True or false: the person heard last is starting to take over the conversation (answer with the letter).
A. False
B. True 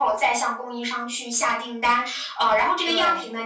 A